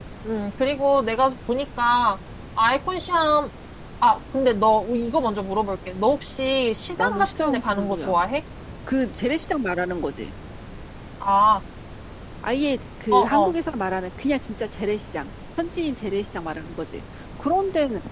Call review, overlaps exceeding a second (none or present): present